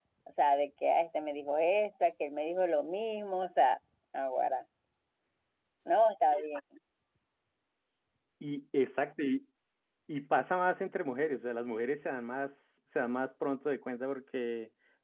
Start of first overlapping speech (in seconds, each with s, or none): none